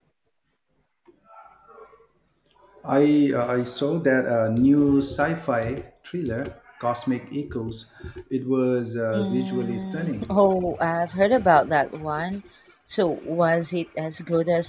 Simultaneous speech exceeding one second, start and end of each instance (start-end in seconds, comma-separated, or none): 9.1-10.4